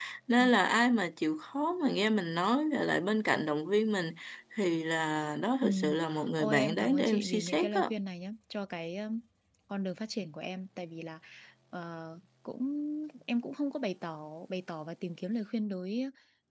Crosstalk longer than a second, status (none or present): present